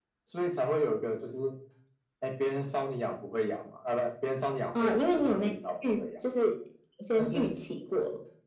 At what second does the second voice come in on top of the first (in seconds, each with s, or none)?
4.8 s